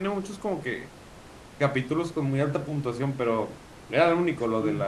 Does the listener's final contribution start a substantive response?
No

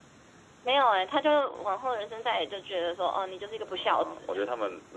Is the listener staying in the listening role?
No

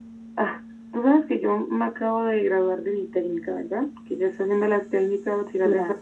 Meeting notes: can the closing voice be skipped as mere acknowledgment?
Yes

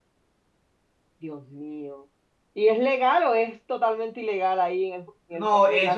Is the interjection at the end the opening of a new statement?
Yes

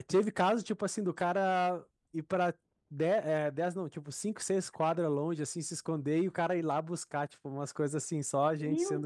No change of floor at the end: No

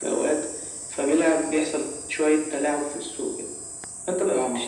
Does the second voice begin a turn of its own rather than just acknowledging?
No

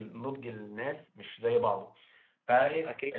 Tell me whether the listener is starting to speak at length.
No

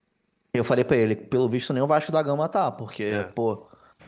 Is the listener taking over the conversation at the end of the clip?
No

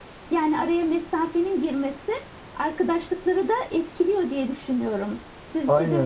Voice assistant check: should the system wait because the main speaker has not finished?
No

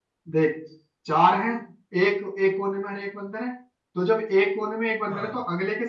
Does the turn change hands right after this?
No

